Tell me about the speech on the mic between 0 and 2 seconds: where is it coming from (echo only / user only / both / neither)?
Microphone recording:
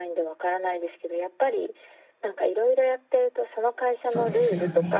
echo only